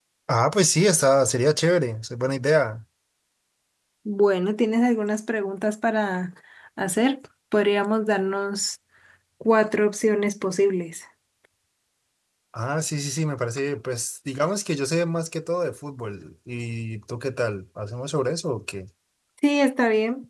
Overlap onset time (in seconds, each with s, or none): none